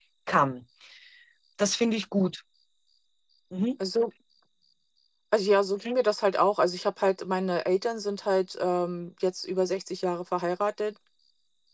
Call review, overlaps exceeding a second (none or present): none